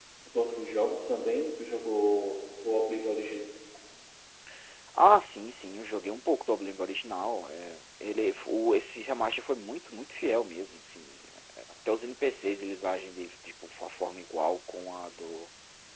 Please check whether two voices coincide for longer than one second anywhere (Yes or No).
No